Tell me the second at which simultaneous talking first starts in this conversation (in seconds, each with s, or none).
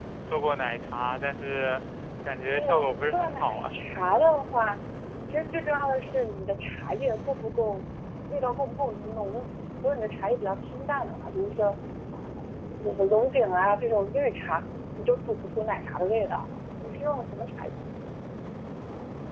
2.5 s